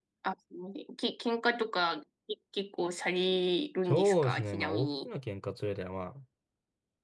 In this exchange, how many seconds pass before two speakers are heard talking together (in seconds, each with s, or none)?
3.9 s